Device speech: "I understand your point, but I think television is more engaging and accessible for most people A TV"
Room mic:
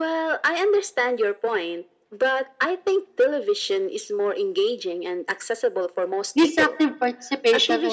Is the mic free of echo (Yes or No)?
No